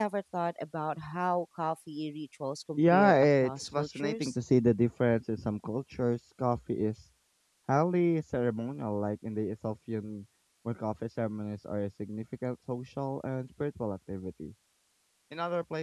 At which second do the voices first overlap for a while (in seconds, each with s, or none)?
2.8 s